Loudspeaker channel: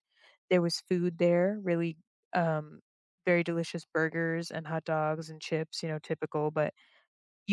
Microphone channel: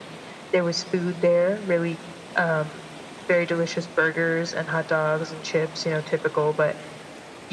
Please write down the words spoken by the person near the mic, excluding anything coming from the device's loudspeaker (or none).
none